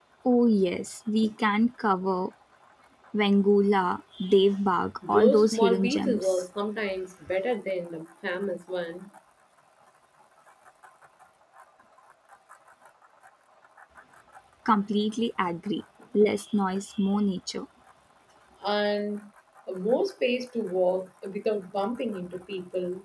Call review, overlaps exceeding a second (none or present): present